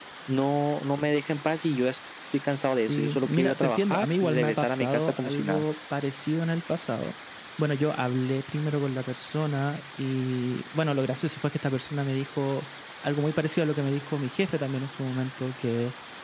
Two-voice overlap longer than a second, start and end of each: 2.9-5.6

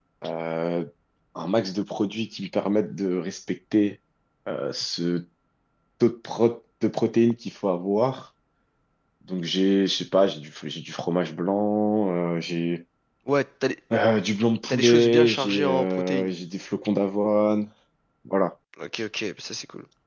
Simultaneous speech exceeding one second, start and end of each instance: 14.7-16.3

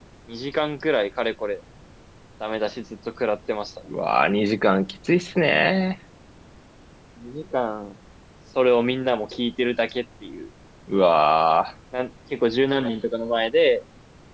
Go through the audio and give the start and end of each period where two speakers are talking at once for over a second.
none

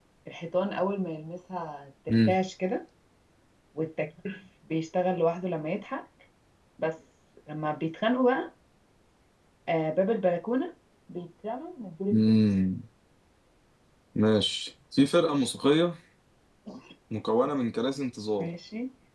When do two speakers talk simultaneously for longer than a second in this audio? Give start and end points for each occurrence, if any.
none

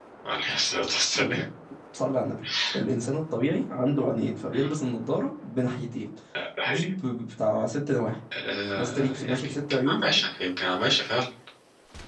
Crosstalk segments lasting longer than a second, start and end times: 8.8-10.2

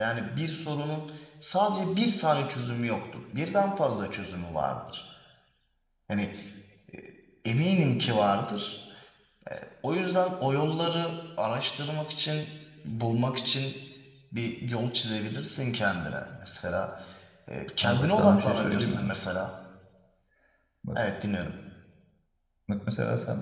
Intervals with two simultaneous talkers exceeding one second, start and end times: 17.8-19.1

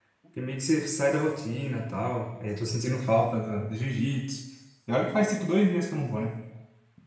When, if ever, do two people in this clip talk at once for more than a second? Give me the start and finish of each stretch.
none

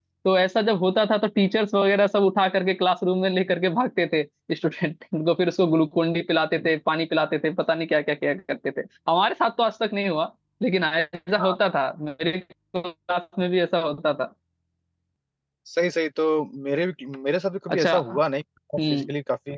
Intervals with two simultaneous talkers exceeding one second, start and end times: none

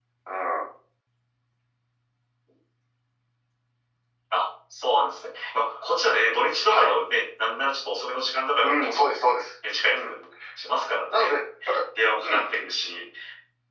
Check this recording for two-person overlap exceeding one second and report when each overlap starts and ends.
none

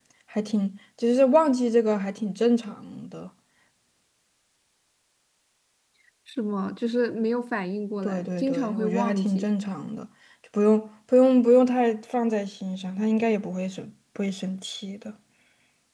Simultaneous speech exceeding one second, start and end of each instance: 8.0-9.4

